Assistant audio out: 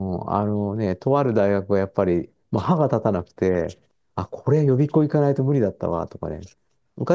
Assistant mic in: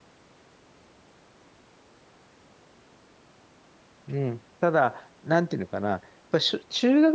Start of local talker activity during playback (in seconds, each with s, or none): 4.1 s